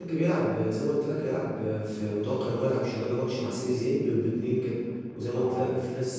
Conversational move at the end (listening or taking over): listening